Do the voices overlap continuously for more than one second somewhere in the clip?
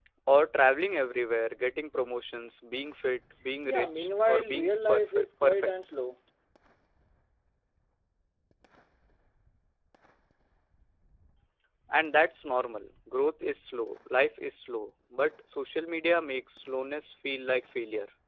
Yes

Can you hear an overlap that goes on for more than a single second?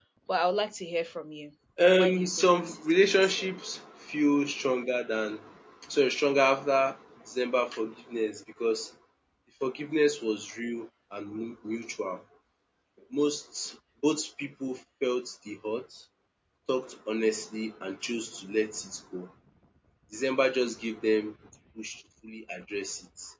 Yes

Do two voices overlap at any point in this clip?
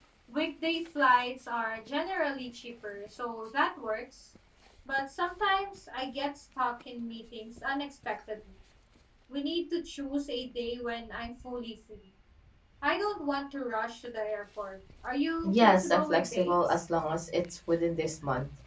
Yes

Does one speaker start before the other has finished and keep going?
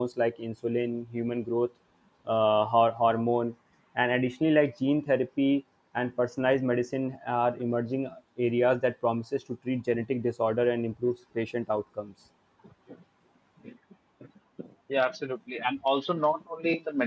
No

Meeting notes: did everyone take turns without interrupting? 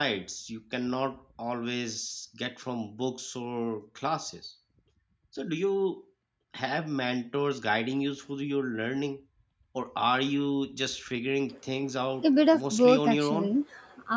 No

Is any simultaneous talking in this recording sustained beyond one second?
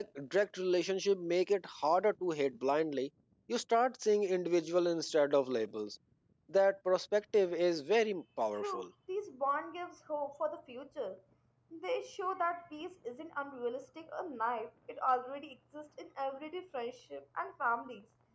No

